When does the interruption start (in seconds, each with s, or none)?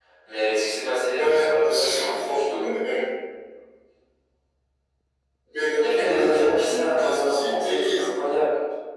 1.1 s